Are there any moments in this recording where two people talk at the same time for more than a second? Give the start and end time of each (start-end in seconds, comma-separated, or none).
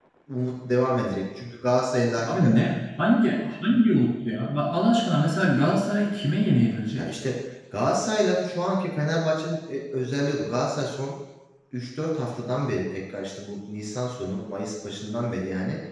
none